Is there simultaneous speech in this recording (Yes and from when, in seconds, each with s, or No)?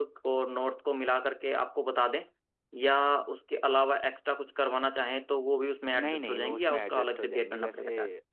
Yes, from 5.9 s